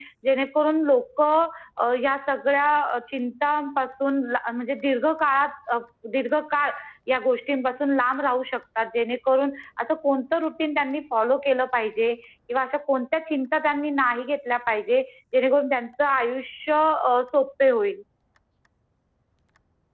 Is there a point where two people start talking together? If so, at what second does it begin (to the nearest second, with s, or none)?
none